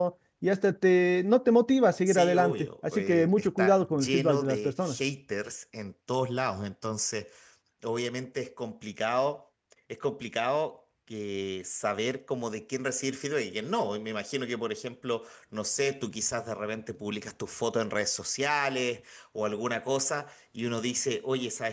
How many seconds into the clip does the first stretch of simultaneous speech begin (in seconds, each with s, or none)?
2.1 s